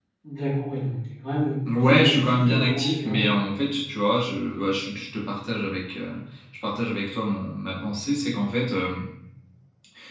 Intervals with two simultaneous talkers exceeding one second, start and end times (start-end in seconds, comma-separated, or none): 1.6-3.3